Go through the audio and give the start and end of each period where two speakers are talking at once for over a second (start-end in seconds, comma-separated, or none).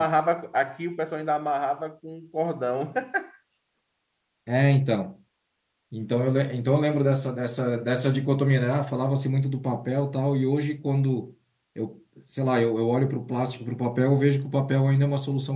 none